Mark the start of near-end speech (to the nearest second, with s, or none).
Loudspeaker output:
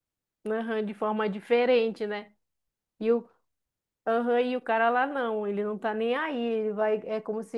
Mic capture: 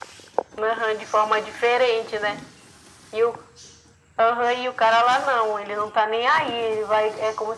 none